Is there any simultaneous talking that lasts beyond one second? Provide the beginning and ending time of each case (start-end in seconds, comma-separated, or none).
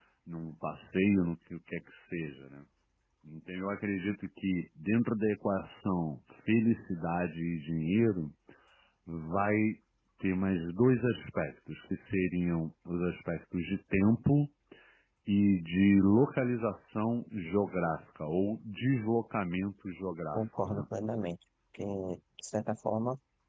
none